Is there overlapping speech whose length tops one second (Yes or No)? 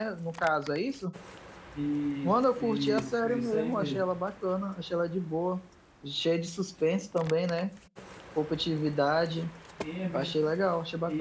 Yes